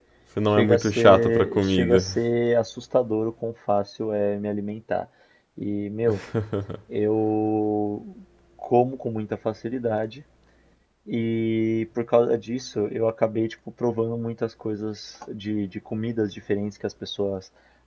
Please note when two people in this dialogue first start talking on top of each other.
1 s

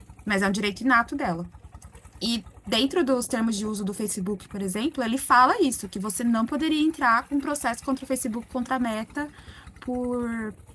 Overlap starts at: none

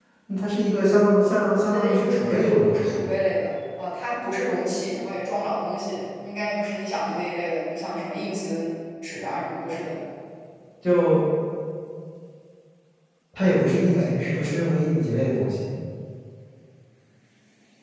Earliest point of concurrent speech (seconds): 2 s

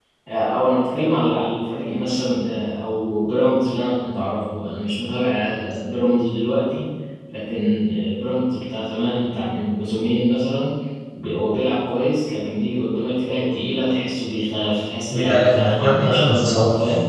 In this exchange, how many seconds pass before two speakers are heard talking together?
15 s

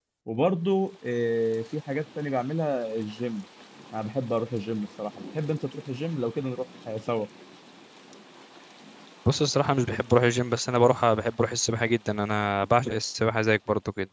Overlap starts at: none

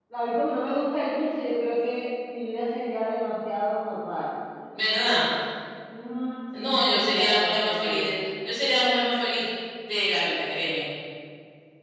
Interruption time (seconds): 7 s

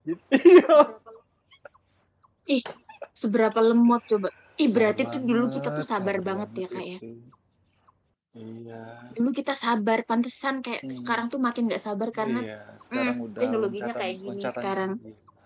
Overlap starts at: 5 s

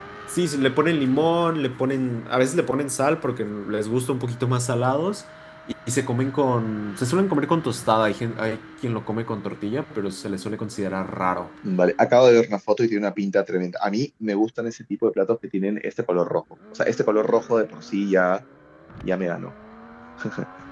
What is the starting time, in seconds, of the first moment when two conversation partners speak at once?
none

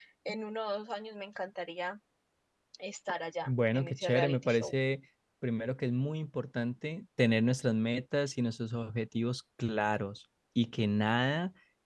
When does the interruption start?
3 s

